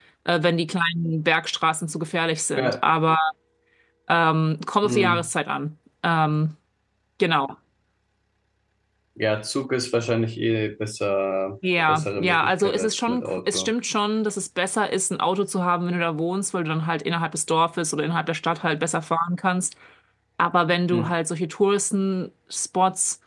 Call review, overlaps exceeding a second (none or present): present